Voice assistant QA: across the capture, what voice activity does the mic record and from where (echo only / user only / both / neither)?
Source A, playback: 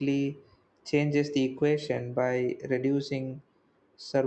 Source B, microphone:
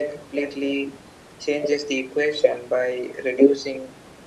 echo only